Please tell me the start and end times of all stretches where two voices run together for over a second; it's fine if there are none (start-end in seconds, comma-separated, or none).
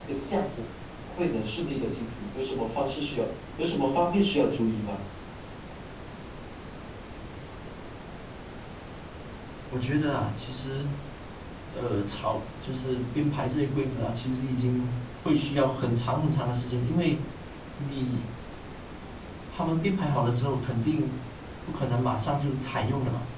none